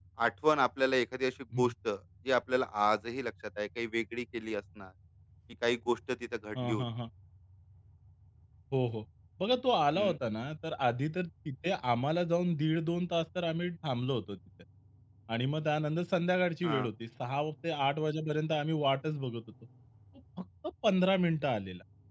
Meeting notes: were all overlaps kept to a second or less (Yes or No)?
Yes